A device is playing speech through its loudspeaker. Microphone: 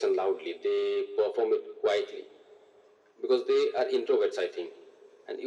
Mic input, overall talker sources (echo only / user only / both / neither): echo only